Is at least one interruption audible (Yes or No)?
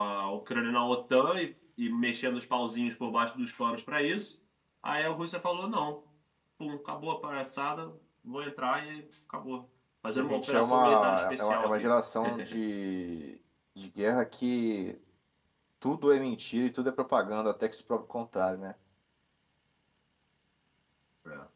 Yes